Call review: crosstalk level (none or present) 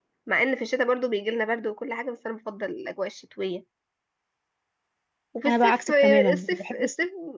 present